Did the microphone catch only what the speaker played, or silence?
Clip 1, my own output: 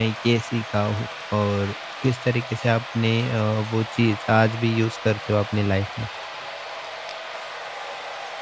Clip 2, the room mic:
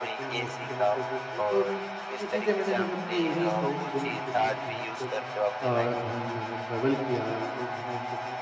No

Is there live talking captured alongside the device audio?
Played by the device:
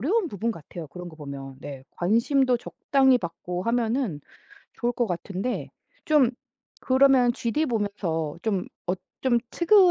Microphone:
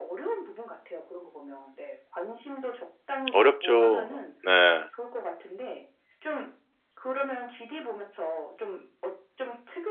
Yes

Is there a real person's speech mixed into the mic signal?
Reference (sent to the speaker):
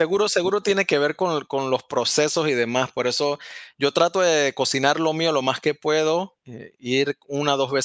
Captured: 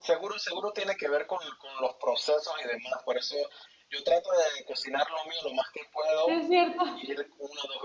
Yes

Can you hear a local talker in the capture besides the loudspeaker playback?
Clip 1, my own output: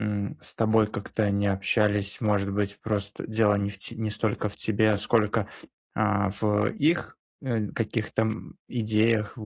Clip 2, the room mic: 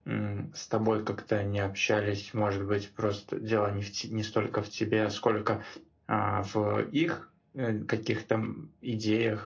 No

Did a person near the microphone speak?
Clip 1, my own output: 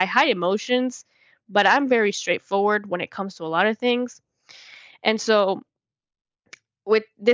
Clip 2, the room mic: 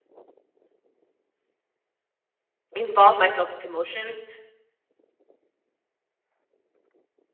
Yes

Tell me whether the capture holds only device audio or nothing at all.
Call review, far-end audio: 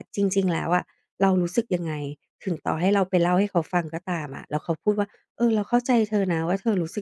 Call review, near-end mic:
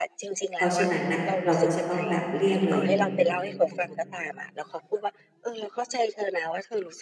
No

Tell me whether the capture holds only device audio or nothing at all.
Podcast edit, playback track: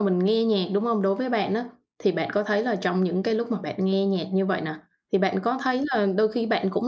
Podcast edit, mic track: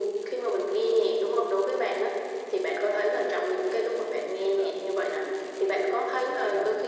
No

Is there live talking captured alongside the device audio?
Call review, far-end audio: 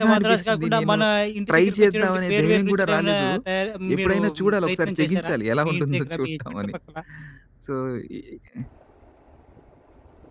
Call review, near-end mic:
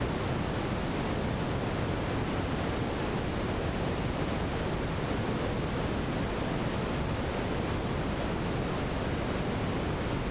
No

